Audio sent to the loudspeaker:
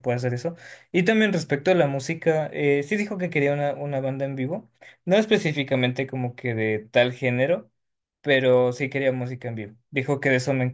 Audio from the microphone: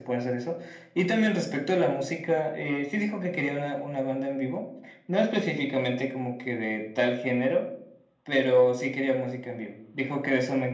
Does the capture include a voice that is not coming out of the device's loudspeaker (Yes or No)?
No